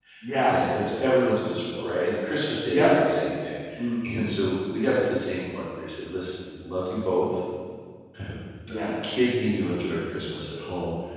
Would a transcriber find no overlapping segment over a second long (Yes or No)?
Yes